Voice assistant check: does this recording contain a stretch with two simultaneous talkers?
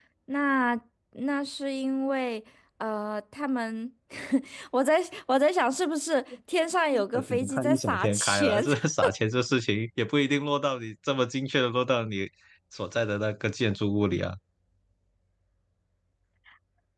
Yes, from 6.9 s

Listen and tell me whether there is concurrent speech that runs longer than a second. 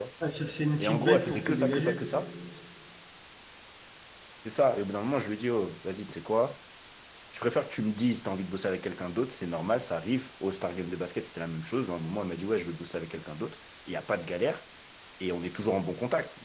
Yes, from 0.8 s

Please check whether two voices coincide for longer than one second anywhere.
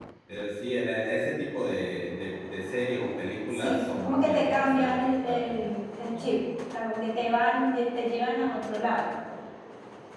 Yes, from 3.5 s

